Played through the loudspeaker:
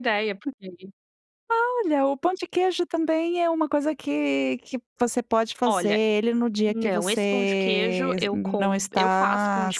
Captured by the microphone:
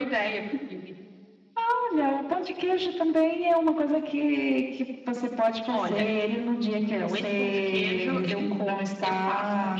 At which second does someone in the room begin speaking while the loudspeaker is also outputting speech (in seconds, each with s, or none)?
none